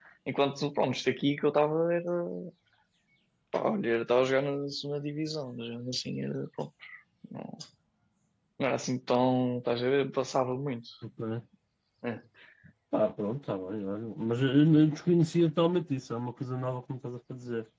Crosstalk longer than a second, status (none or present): none